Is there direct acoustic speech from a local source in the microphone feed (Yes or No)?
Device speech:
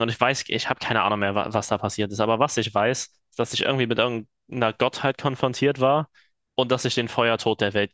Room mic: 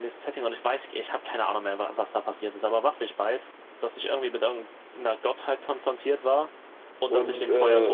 Yes